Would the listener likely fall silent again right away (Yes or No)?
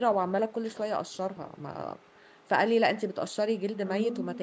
Yes